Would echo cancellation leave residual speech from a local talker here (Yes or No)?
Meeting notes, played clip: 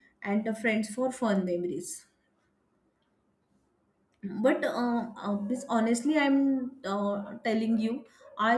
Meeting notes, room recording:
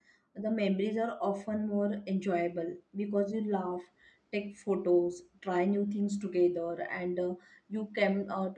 Yes